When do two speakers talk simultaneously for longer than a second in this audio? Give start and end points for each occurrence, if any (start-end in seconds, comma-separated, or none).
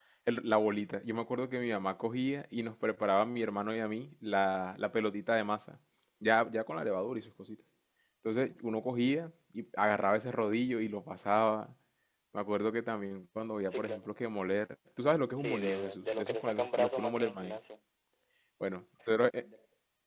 15.4-17.6